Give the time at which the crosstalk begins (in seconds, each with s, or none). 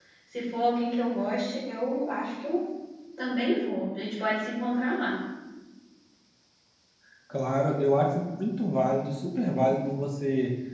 none